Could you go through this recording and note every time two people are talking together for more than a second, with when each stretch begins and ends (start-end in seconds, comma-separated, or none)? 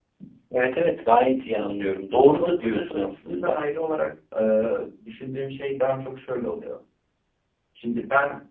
2.3-3.5